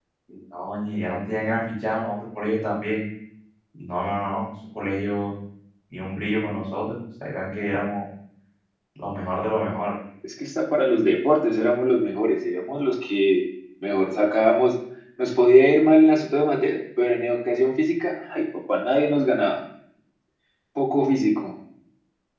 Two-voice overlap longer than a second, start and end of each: none

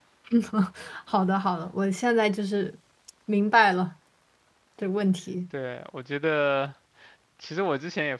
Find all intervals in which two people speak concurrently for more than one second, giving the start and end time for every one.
none

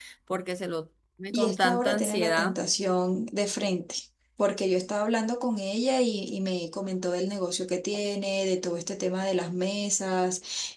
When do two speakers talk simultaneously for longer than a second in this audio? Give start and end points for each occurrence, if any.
1.3-2.6

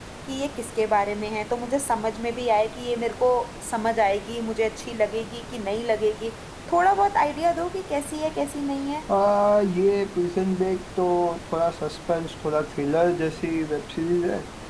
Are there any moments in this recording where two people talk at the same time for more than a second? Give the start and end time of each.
none

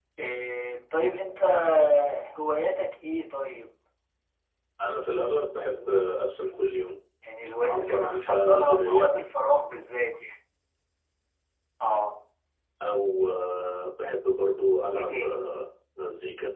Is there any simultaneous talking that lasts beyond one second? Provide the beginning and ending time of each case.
7.7-9.1

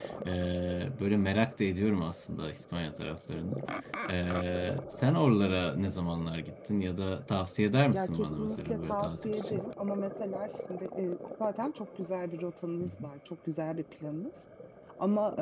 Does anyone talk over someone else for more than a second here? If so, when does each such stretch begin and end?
7.9-9.6

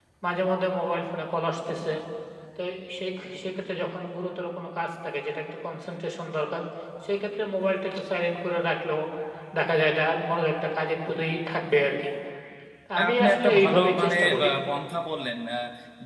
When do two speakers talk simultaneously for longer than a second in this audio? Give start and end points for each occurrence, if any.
13.0-14.5

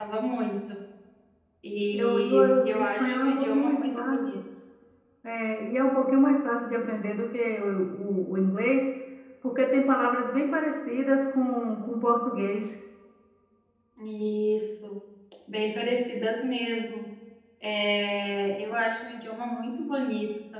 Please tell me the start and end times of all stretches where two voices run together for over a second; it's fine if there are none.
1.9-4.4

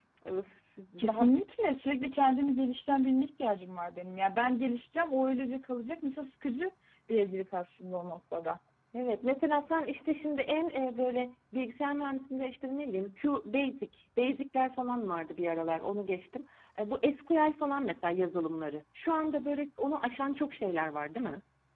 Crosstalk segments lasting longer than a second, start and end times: none

